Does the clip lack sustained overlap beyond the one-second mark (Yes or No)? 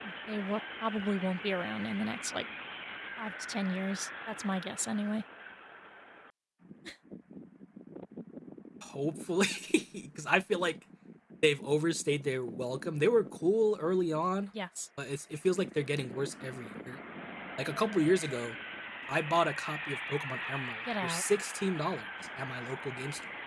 Yes